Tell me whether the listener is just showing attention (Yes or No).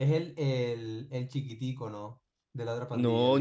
No